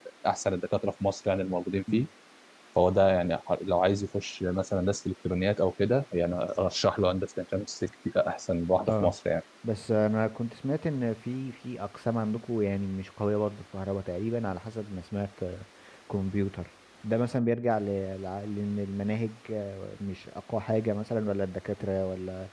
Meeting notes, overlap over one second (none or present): none